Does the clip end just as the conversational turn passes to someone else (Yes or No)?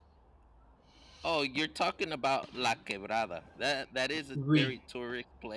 No